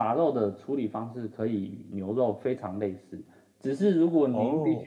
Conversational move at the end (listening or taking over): listening